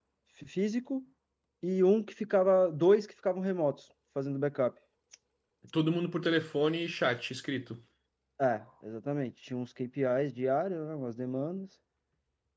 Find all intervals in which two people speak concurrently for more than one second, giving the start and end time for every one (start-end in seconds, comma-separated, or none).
none